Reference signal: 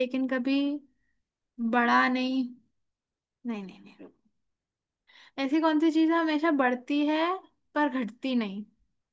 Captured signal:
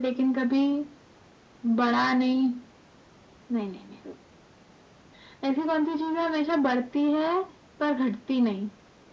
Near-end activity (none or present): none